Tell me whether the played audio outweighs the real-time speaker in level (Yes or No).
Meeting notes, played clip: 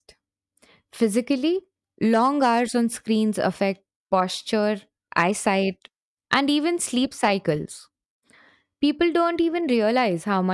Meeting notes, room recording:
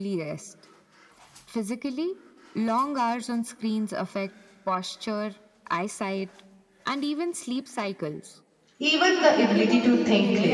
No